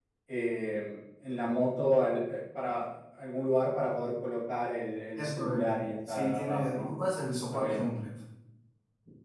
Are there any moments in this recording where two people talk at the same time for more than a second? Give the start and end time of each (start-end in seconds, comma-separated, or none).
5.2-6.9